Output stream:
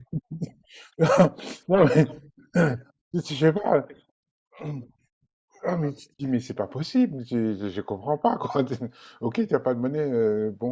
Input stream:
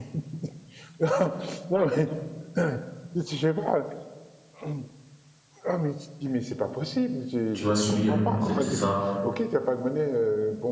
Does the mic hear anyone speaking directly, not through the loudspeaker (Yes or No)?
Yes